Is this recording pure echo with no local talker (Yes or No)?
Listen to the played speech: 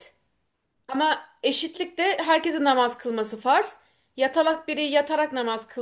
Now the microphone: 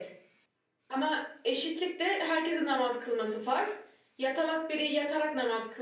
Yes